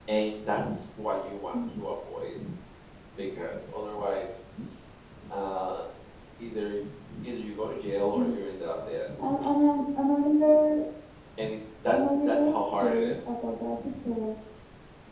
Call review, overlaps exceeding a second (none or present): present